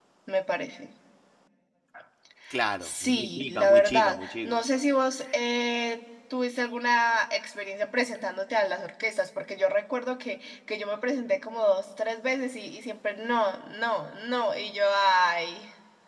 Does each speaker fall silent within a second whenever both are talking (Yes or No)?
No